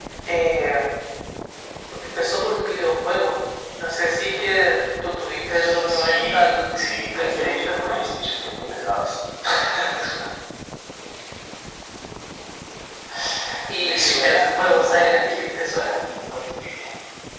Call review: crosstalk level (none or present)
present